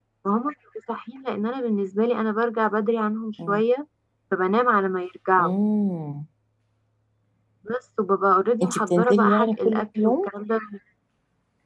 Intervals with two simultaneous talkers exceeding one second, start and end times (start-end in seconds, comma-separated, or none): 8.6-10.3